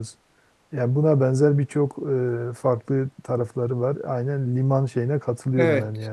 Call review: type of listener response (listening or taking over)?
taking over